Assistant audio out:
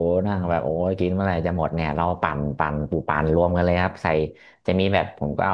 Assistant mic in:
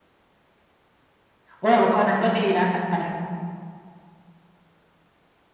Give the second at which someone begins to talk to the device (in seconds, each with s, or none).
1.6 s